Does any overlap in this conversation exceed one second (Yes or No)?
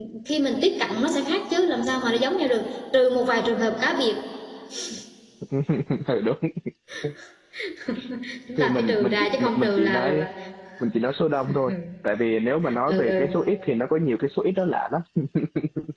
Yes